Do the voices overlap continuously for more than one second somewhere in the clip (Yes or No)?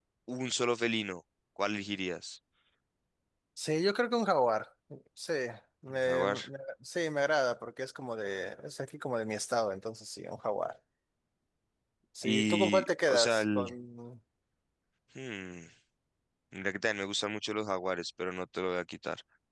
Yes